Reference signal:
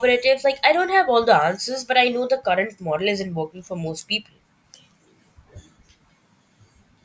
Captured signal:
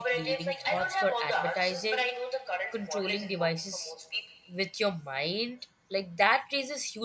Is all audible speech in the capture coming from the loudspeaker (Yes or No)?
No